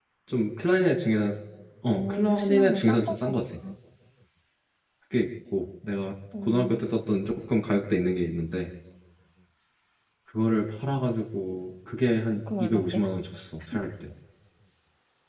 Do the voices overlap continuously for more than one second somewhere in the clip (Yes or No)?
Yes